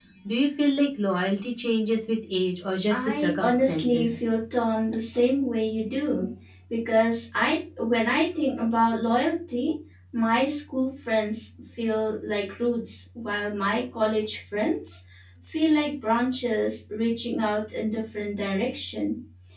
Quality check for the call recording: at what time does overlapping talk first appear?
2.9 s

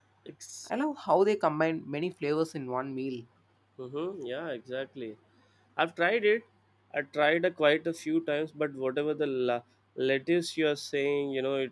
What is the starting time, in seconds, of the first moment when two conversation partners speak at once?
none

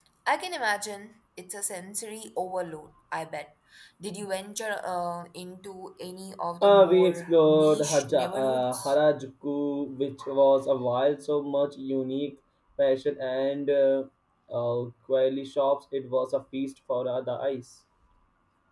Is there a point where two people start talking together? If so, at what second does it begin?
6.6 s

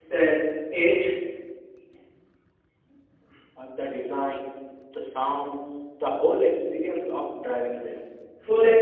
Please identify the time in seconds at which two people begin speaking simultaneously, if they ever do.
none

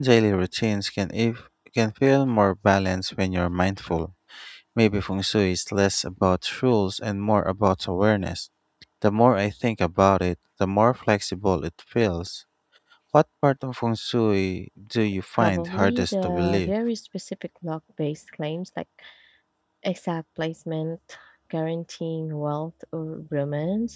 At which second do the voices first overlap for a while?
15.3 s

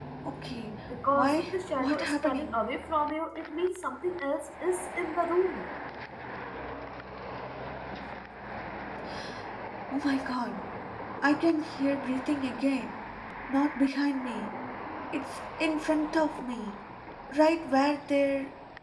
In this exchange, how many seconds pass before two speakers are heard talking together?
1.1 s

